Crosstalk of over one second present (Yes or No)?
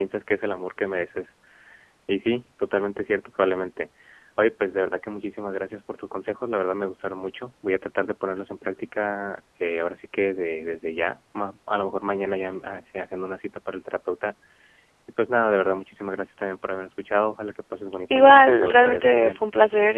Yes